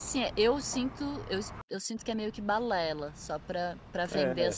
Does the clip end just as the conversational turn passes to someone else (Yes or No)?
Yes